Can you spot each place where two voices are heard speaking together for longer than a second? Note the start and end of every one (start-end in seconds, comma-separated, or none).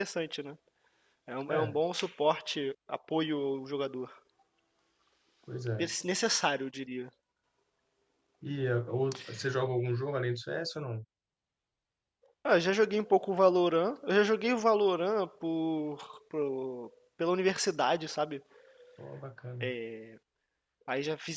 none